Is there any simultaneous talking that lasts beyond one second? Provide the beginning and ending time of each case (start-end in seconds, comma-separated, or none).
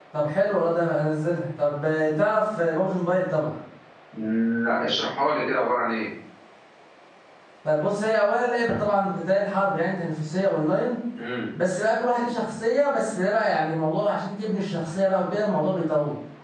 none